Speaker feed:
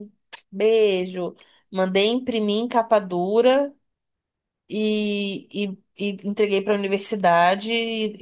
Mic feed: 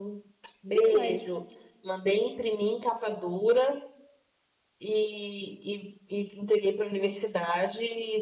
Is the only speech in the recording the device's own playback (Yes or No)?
No